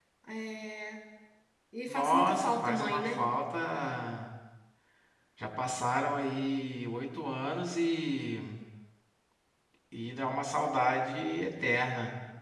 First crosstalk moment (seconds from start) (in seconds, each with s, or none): 1.9 s